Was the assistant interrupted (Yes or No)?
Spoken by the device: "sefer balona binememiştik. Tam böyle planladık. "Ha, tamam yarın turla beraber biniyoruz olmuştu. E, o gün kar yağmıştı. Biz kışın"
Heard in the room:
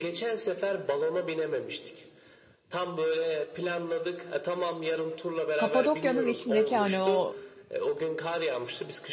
Yes